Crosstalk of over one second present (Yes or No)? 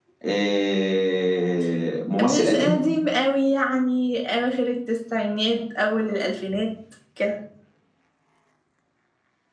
No